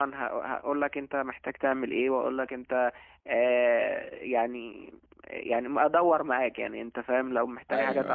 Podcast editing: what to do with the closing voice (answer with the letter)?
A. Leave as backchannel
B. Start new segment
A